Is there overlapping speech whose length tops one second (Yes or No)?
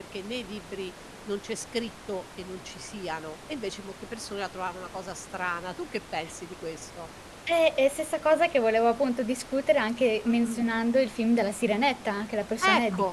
No